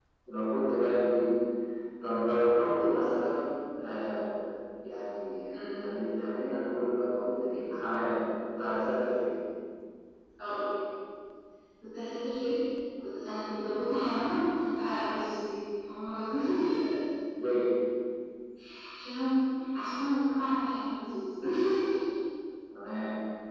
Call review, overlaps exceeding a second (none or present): none